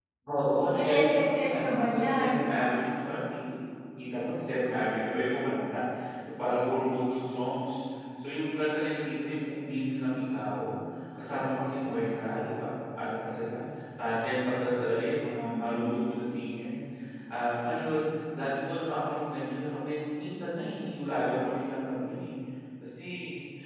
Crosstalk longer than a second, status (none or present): present